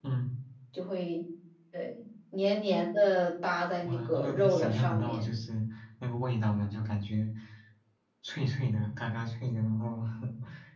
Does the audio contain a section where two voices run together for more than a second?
Yes, from 3.8 s

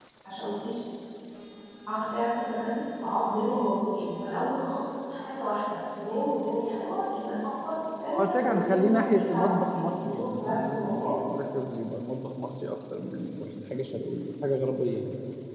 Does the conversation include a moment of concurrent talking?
Yes, from 8.1 s

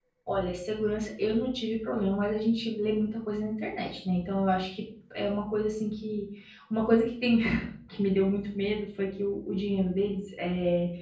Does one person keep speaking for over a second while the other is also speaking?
No

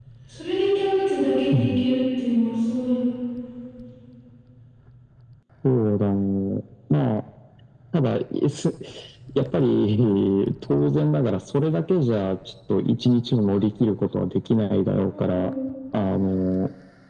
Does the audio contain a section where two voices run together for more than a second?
No

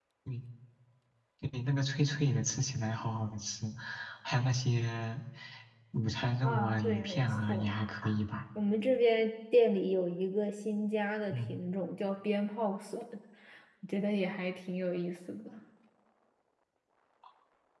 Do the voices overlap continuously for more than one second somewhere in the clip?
Yes, from 6.4 s

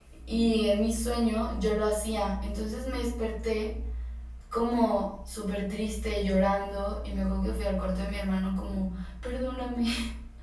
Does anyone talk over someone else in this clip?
No

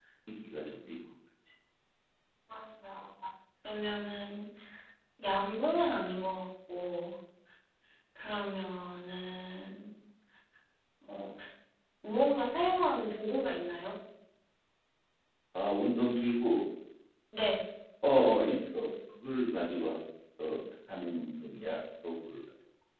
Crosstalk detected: No

